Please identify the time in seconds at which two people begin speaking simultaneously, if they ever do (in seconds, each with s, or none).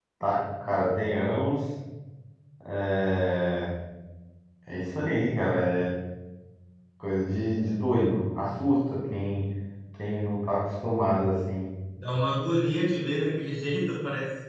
none